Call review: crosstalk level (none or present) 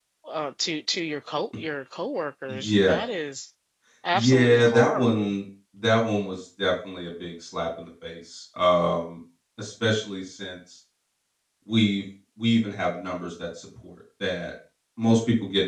present